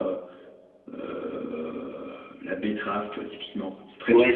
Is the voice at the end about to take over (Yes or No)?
Yes